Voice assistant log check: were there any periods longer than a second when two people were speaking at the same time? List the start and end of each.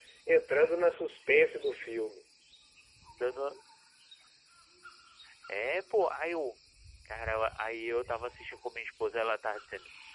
none

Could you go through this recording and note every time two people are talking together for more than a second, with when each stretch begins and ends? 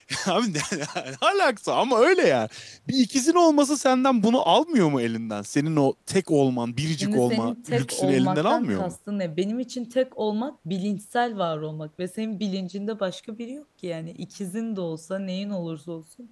7.0-8.9

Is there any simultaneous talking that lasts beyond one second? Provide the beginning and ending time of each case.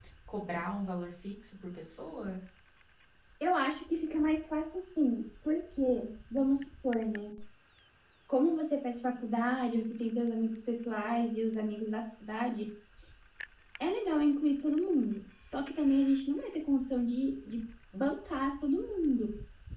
none

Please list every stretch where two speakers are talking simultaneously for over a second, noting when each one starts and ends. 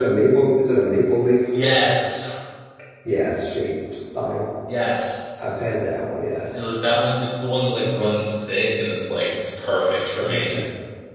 none

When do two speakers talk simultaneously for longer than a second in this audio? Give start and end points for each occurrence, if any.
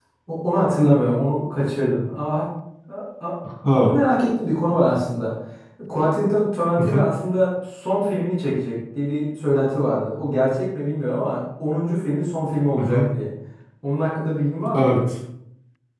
none

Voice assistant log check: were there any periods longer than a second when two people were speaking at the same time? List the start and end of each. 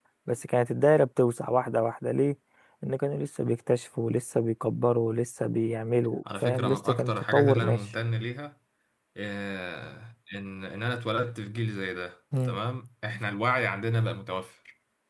6.4-7.8

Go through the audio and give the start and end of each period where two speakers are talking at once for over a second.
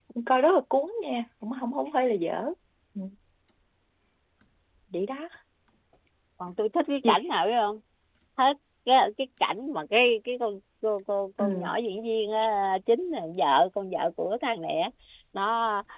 none

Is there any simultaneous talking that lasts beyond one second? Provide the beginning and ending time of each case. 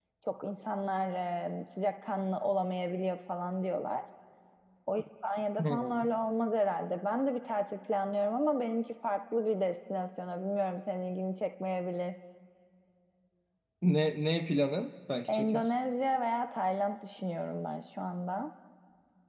none

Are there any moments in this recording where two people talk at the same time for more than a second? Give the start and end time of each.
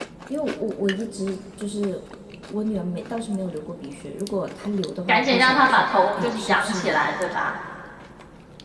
5.1-7.0

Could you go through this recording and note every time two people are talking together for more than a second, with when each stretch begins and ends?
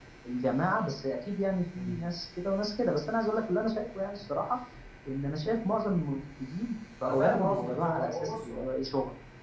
7.0-8.7

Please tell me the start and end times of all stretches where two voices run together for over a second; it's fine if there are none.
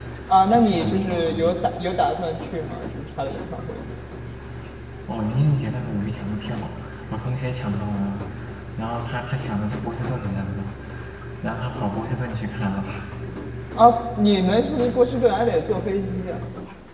0.5-1.7

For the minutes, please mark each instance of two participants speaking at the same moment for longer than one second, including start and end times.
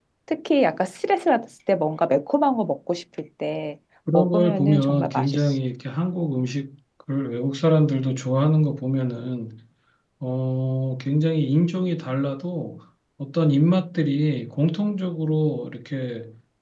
4.1-5.5

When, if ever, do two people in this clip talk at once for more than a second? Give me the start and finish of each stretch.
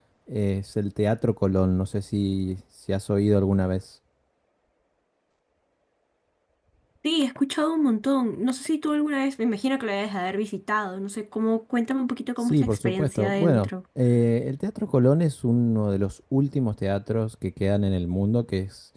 12.4-13.7

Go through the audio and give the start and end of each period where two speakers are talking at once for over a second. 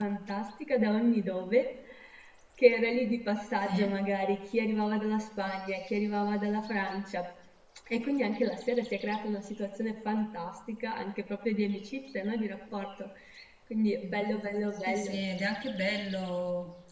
none

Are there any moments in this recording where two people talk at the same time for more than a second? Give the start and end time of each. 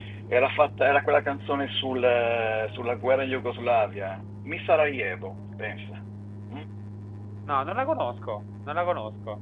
none

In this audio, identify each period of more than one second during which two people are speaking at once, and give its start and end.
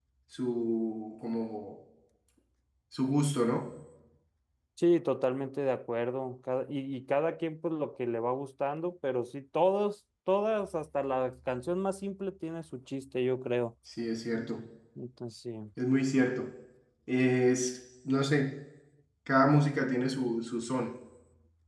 none

